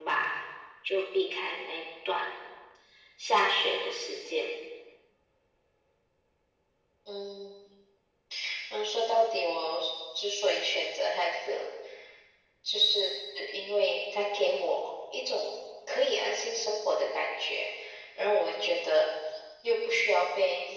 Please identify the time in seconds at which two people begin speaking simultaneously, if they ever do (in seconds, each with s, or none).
none